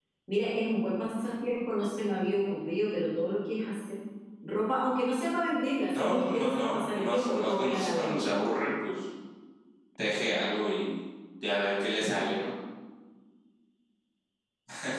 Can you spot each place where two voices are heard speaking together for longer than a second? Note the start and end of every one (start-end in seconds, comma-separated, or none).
5.9-8.3